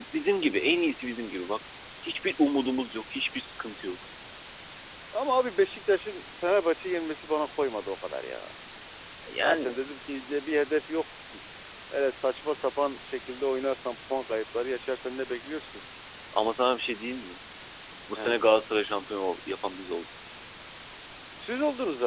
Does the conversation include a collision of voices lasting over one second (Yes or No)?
No